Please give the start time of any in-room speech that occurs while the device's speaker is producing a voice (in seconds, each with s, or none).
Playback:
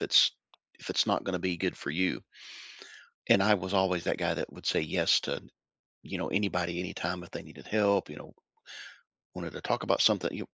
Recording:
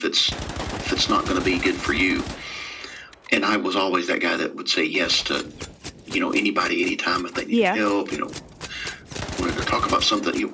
7.5 s